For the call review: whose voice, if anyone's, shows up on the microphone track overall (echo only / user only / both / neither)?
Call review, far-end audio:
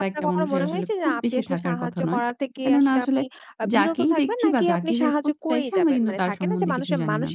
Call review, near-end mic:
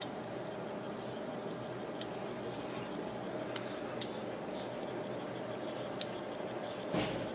neither